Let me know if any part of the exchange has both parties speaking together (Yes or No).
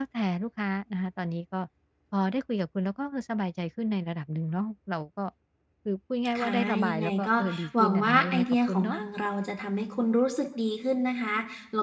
Yes